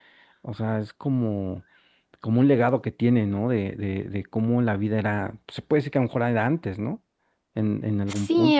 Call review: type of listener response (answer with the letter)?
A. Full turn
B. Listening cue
A